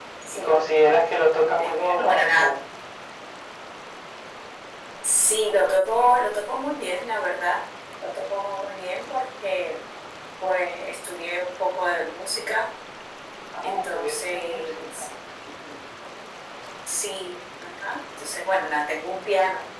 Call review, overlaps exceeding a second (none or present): present